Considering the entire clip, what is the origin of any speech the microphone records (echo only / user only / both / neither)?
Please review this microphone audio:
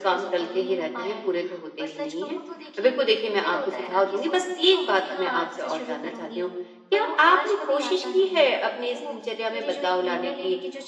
echo only